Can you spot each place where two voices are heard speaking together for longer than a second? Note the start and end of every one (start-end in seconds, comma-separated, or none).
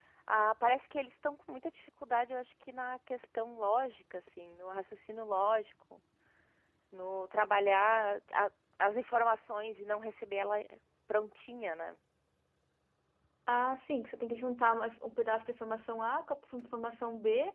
none